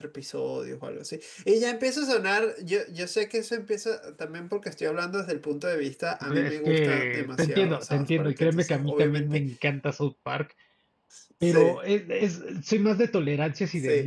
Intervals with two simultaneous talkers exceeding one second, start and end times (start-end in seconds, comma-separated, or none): 6.4-9.4